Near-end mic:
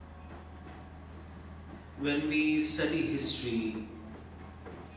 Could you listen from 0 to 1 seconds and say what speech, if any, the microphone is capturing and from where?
neither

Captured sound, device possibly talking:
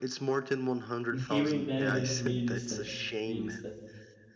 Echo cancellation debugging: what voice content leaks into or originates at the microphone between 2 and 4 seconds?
both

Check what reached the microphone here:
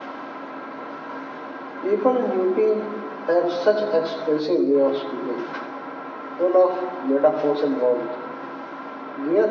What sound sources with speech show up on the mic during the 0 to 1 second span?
neither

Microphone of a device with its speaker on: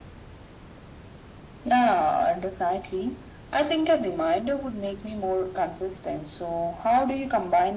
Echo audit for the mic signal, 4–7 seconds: echo only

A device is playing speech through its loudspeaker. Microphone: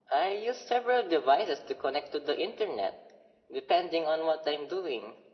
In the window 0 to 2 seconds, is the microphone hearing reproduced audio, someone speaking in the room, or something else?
echo only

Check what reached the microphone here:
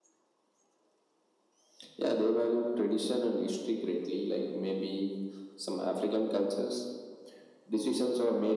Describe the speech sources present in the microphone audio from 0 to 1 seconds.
neither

